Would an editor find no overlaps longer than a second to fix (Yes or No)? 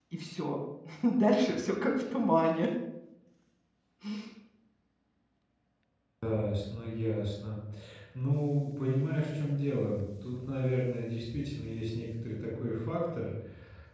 Yes